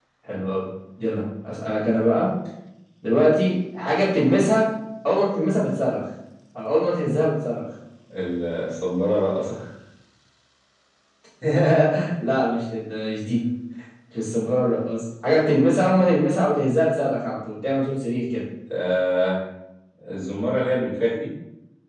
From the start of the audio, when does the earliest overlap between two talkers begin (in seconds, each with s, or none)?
none